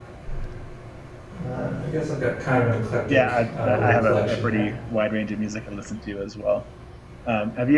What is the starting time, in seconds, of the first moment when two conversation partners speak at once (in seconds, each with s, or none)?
3.1 s